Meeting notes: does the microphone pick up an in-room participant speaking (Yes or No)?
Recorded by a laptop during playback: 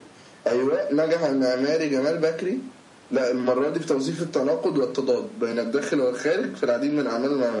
No